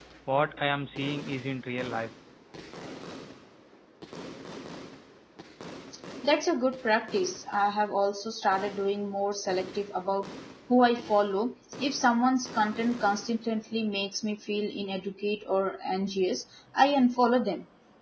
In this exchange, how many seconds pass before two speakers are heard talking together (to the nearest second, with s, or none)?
none